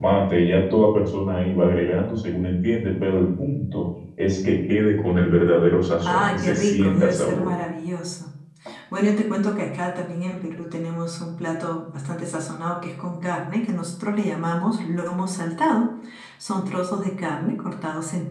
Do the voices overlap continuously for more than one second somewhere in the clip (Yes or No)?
Yes